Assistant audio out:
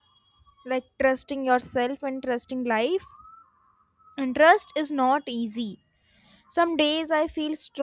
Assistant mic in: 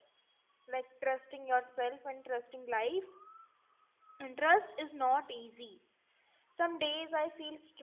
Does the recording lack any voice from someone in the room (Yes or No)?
Yes